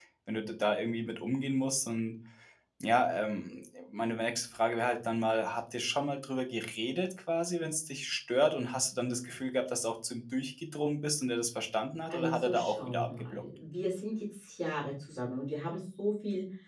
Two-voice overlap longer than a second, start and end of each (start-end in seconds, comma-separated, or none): 12.1-13.4